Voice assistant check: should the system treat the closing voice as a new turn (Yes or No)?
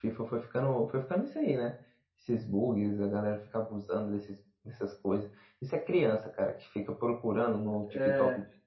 No